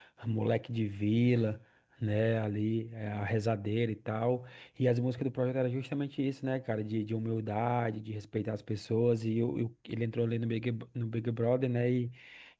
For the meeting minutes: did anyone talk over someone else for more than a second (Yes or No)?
No